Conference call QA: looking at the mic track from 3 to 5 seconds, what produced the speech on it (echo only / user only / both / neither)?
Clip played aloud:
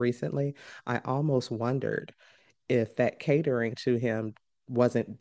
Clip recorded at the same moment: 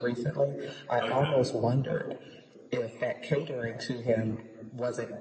echo only